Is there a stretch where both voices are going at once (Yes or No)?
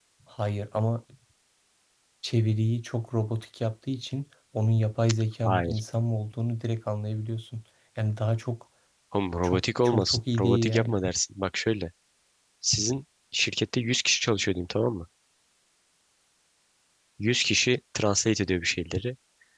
Yes